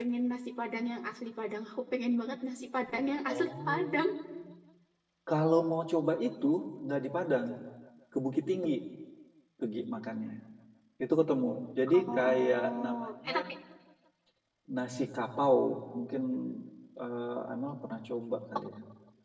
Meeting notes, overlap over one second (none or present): present